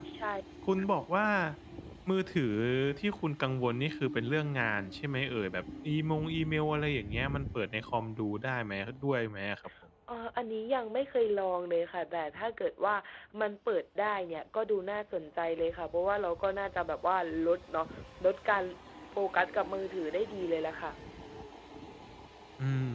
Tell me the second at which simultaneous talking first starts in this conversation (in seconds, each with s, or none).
none